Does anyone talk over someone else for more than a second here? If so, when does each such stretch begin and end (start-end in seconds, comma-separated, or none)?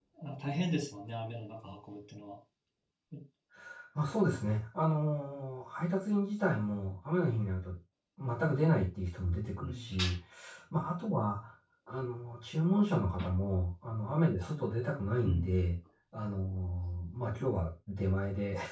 none